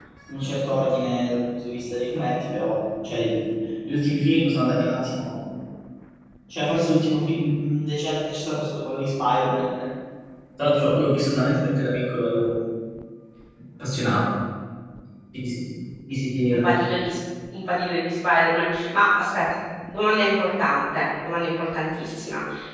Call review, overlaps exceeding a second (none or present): none